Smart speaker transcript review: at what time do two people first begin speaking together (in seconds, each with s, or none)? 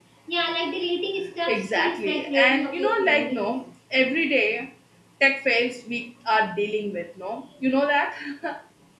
1.5 s